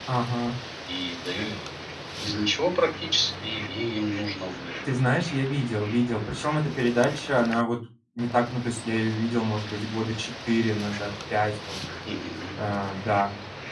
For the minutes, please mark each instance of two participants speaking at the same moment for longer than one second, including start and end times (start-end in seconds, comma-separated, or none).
none